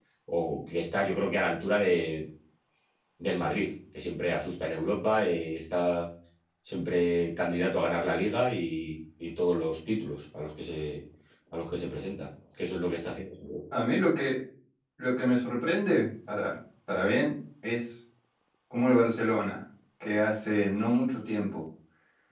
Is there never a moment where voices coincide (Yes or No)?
Yes